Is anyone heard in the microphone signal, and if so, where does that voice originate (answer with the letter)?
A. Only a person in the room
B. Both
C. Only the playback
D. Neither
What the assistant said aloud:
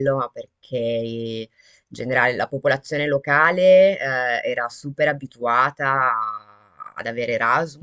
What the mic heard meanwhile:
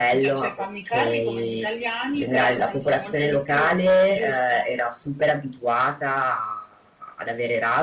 B